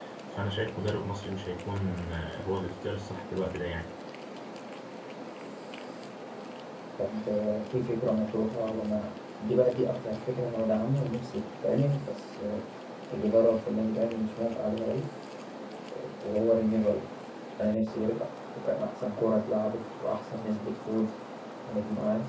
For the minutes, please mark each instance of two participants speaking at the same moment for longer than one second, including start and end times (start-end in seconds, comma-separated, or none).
none